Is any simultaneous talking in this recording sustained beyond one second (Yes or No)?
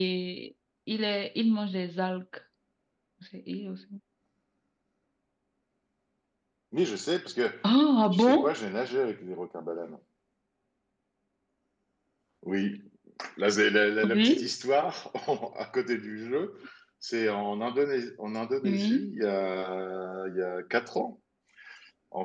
No